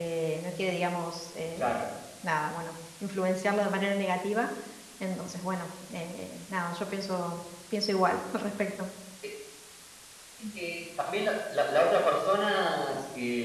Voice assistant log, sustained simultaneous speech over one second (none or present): none